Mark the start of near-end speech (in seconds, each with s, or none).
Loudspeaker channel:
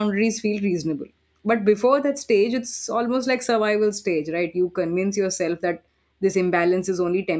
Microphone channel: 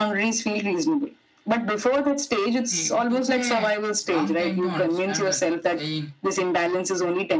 2.6 s